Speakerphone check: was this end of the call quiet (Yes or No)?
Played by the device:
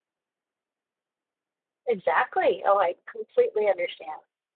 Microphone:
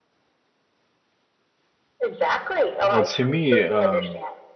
No